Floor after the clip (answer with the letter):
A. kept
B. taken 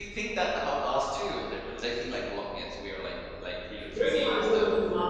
B